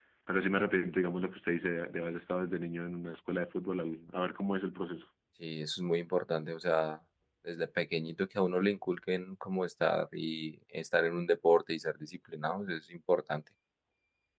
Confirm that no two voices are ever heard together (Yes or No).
Yes